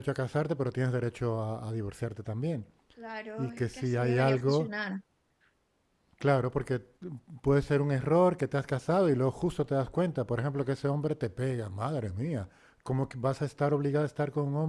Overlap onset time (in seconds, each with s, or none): 3.4 s